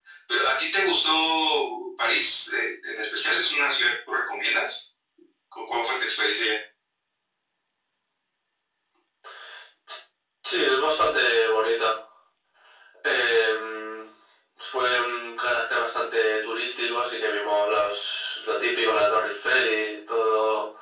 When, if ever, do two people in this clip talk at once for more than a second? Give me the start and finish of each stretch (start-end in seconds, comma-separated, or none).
none